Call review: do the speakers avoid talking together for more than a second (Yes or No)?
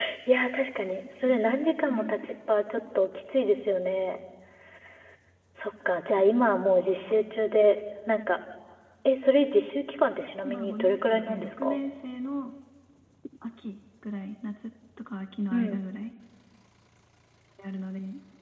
No